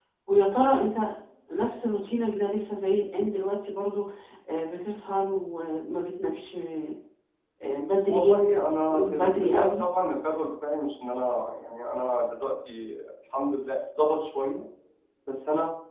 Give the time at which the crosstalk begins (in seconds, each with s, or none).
8.1 s